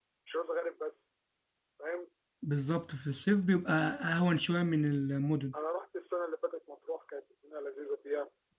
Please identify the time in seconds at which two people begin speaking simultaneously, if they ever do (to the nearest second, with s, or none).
none